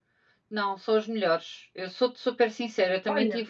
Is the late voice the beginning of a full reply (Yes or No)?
No